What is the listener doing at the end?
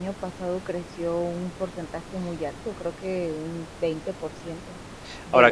listening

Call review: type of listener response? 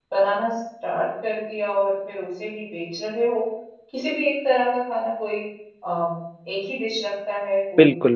taking over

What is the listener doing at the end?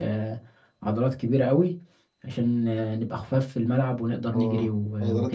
taking over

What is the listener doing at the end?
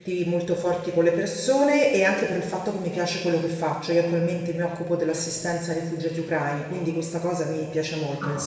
taking over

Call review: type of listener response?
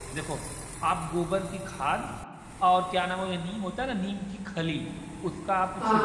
listening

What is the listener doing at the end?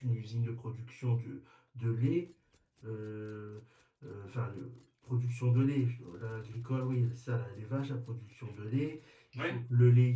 listening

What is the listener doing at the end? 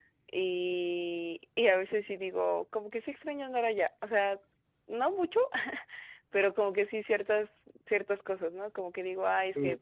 listening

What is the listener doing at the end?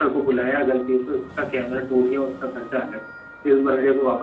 listening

